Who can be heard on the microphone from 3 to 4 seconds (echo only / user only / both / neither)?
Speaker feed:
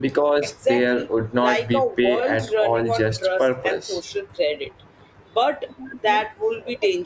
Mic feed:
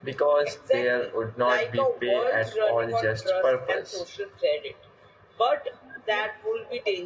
echo only